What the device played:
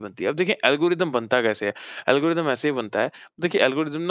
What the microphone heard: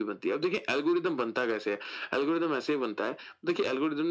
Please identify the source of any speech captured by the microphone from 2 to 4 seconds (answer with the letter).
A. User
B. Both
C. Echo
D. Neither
C